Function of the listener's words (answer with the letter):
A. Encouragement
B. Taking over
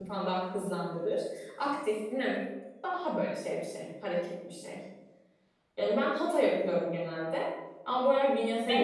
B